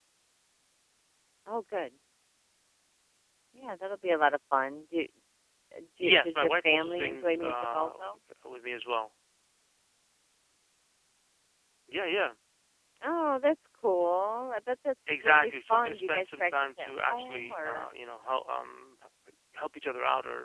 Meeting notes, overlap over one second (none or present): present